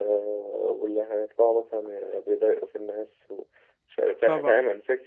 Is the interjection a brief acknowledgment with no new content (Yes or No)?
Yes